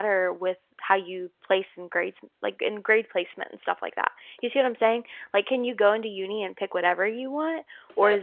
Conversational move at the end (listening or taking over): taking over